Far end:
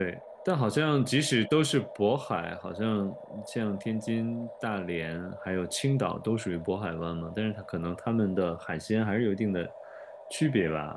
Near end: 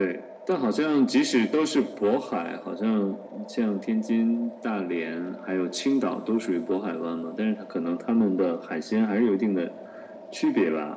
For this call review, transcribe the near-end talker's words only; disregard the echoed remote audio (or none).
none